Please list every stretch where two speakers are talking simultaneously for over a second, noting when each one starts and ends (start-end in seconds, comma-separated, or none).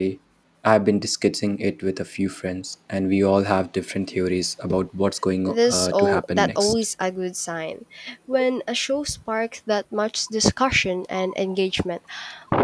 5.5-6.7